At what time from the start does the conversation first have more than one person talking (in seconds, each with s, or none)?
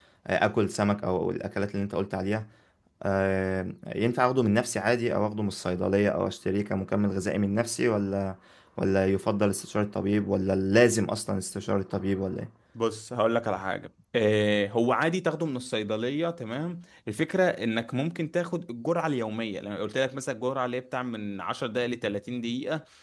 none